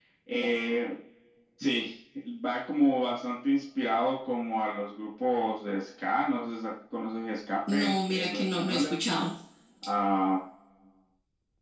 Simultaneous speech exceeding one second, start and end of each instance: 7.8-9.0

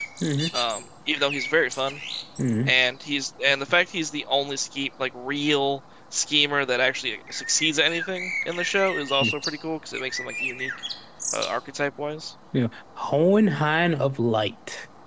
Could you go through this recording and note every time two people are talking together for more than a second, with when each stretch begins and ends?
none

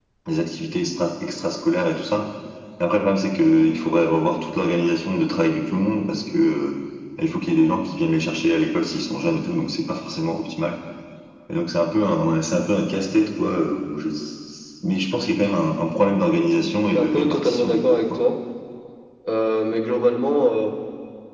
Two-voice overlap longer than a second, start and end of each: 16.9-18.2

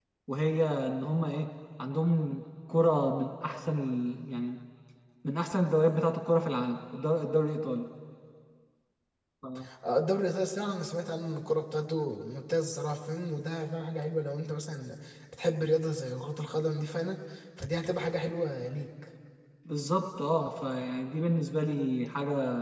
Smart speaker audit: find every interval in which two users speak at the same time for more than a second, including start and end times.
none

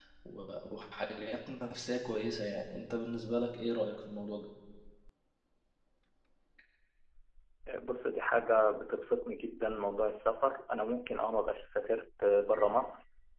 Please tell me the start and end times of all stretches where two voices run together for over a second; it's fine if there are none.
none

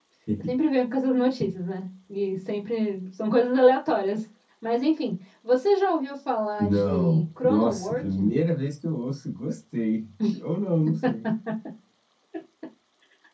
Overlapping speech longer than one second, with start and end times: 6.6-8.3

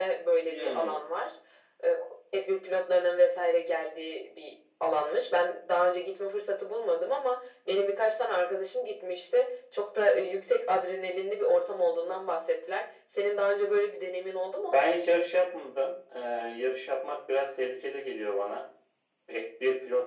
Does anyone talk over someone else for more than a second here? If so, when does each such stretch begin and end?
none

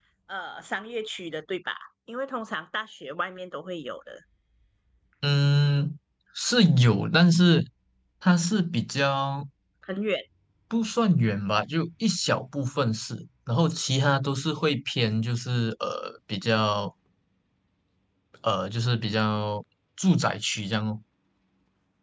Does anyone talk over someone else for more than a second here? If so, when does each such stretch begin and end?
none

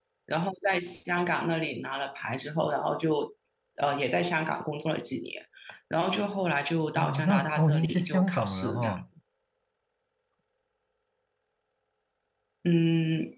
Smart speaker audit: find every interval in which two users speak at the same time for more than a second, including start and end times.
7.0-9.0

